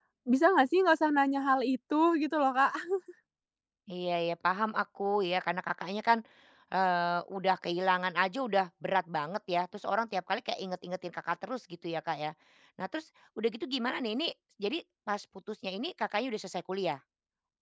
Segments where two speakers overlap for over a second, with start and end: none

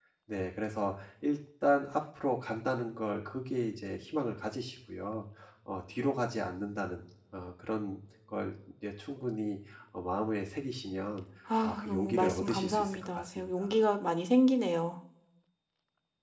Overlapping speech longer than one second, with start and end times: 11.6-13.7

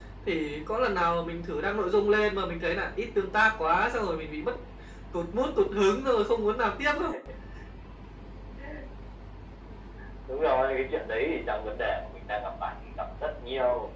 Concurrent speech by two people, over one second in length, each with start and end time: none

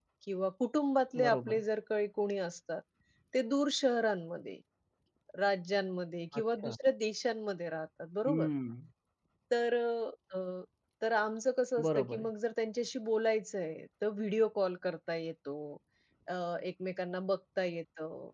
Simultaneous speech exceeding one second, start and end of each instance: none

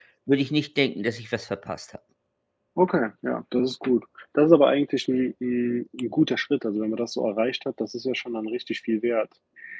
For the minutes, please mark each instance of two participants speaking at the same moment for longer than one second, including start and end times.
none

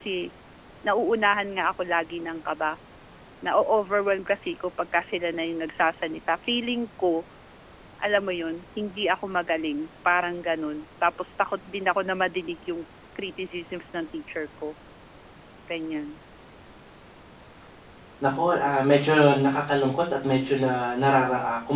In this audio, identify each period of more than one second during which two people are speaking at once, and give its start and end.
none

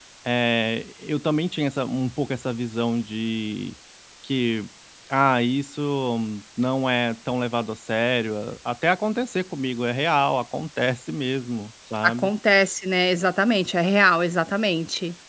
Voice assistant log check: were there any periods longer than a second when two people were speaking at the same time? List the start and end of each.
none

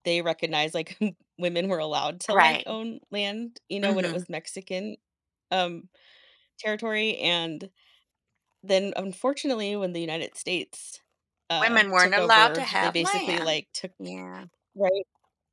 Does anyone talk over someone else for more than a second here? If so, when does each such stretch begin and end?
11.6-13.5

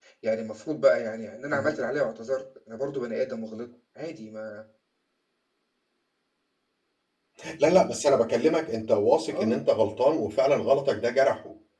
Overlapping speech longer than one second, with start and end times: none

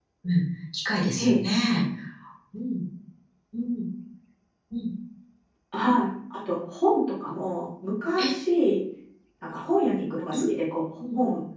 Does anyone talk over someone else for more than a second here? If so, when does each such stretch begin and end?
none

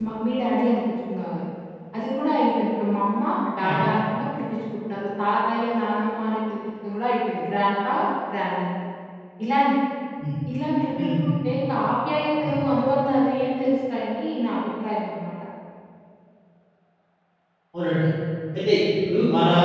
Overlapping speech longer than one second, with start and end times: none

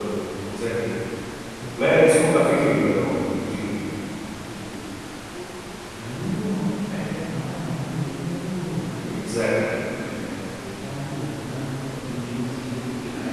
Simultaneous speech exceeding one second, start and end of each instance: 1.8-3.1

